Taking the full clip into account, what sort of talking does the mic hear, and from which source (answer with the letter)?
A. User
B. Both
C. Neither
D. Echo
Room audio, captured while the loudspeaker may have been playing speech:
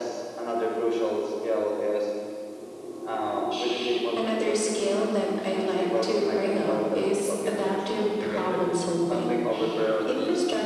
D